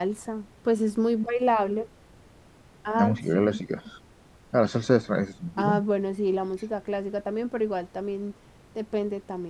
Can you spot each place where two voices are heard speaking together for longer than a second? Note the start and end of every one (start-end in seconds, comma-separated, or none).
none